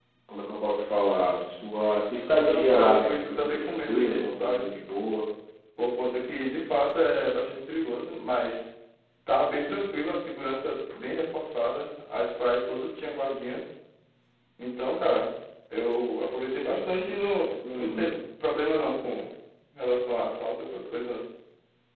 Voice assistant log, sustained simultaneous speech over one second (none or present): present